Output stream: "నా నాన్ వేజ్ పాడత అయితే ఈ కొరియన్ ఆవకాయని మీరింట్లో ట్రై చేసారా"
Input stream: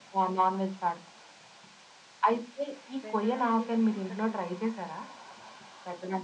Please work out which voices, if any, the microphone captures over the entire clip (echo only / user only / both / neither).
both